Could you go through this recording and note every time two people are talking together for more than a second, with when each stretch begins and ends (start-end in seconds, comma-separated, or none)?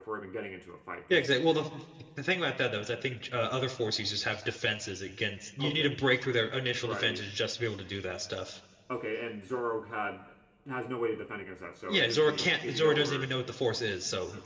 11.9-13.3